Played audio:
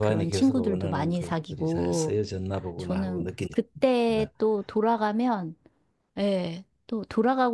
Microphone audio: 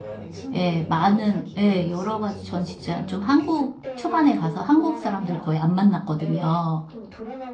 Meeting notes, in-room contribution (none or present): present